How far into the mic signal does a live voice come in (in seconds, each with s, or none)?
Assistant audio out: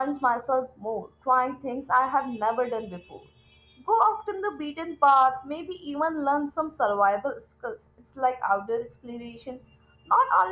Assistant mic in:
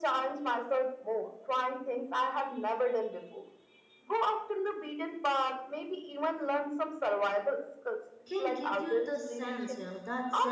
8.2 s